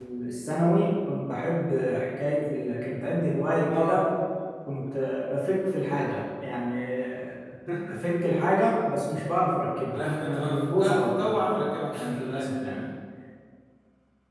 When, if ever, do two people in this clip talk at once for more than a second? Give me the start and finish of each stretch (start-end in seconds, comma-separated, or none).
9.9-12.5